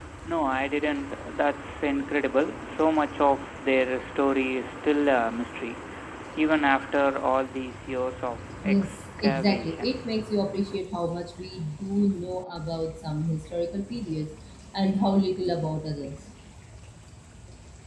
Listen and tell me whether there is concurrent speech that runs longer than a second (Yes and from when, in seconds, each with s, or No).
Yes, from 8.6 s